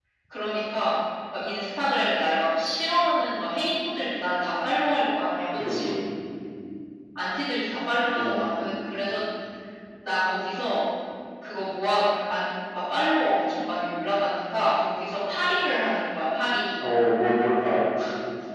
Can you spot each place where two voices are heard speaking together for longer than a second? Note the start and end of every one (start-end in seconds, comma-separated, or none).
none